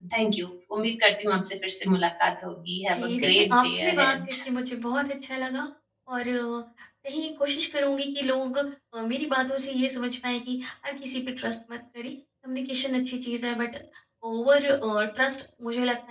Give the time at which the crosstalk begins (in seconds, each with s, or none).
2.9 s